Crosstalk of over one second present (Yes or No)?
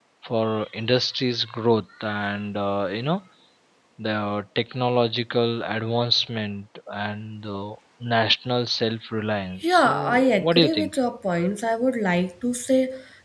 Yes